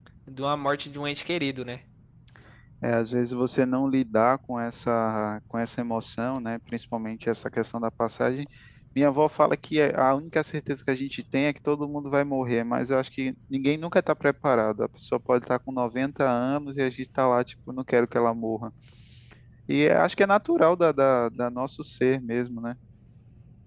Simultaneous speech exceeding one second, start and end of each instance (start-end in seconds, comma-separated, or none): none